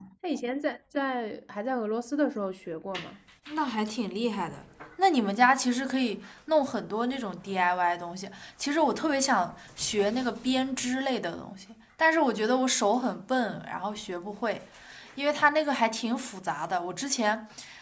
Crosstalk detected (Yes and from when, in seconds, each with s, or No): No